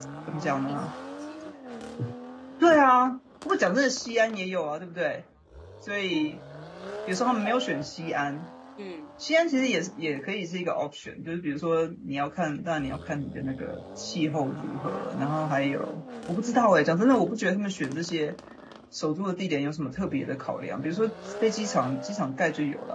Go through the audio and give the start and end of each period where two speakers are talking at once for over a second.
none

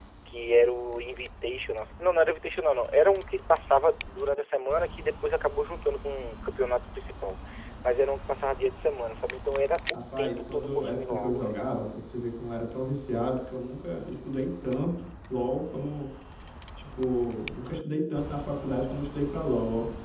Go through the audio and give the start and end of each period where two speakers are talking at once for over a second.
9.9-11.6

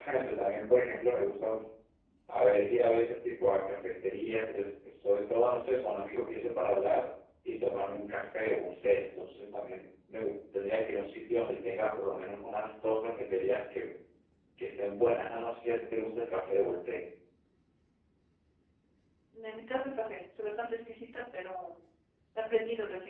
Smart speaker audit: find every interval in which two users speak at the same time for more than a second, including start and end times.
none

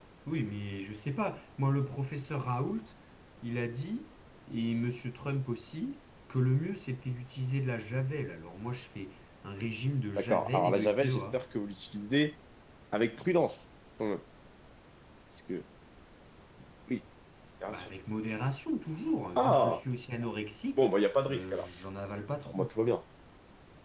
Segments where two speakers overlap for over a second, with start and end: 10.2-11.4

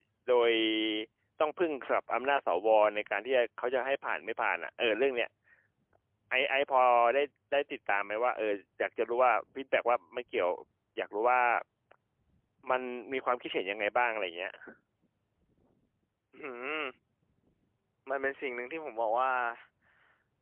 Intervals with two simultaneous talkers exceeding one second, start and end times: none

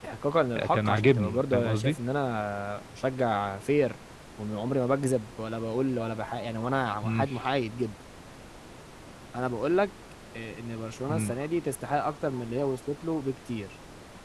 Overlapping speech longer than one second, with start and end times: 0.7-2.0

